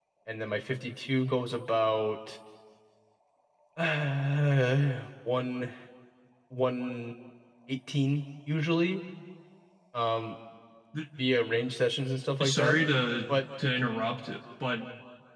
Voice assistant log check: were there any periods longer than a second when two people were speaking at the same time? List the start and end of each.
none

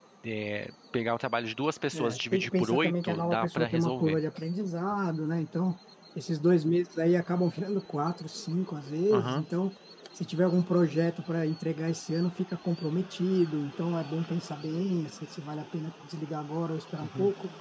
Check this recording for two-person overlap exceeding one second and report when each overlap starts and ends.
1.9-4.2

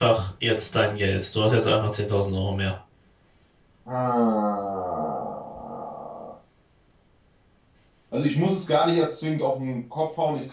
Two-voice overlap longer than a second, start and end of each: none

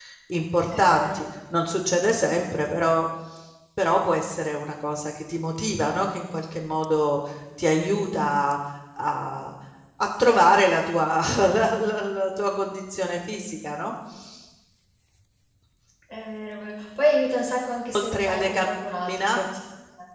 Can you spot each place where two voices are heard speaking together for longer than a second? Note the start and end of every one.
17.9-19.3

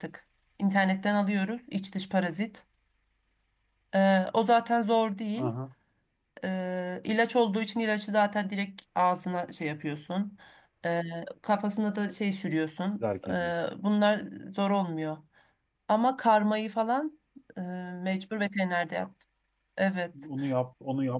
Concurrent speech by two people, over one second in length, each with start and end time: none

